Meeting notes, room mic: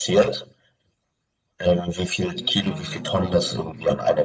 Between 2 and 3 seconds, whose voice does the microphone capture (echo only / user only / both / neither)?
both